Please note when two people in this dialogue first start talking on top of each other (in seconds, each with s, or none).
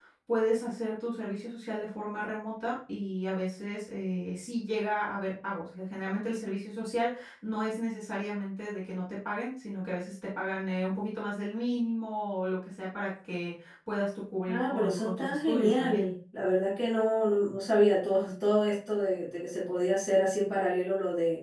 14.5 s